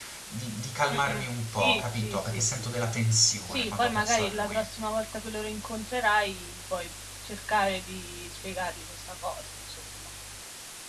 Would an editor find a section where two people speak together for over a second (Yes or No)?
Yes